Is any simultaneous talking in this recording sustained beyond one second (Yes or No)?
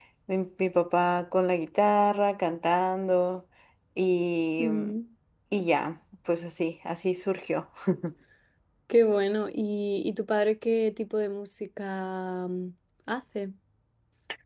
No